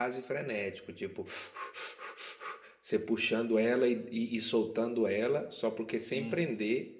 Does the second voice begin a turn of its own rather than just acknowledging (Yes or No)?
No